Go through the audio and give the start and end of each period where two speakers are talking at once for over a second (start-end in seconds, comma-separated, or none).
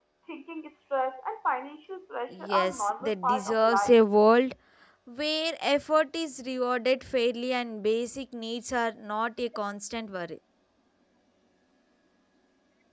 2.3-4.0